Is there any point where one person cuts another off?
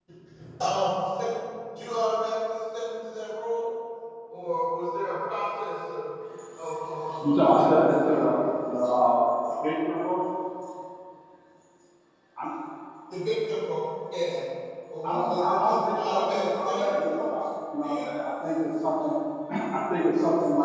Yes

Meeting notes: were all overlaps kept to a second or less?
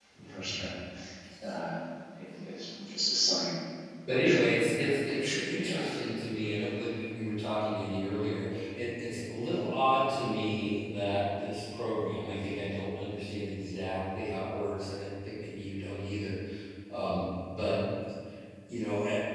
No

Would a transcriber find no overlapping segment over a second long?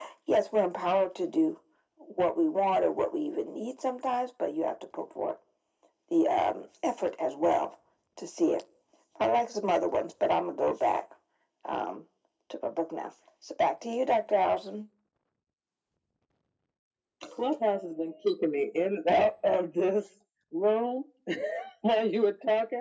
Yes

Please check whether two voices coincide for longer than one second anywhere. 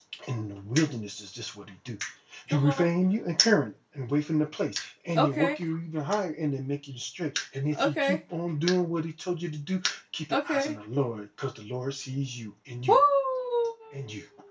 No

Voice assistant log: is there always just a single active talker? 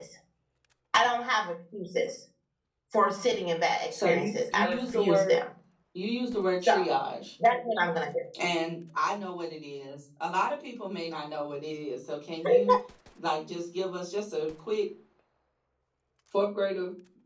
No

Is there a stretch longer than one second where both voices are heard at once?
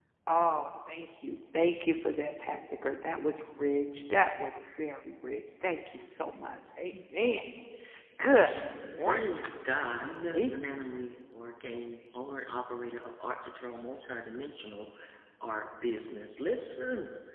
Yes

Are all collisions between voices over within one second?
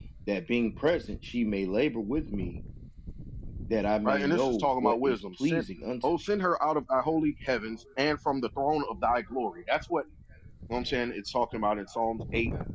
No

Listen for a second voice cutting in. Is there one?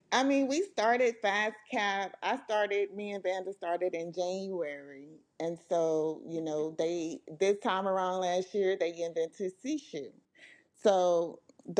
No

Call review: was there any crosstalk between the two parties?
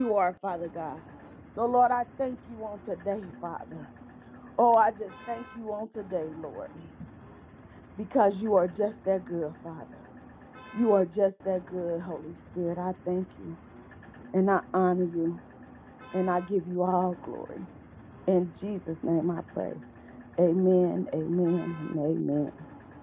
No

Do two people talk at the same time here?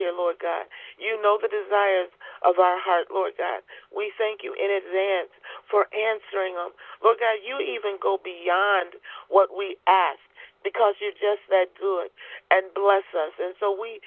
No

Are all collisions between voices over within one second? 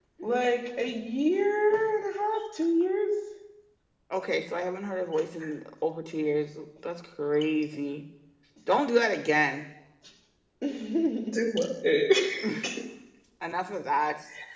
Yes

